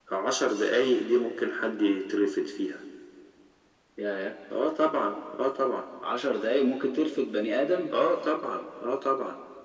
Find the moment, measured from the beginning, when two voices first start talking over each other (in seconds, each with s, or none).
none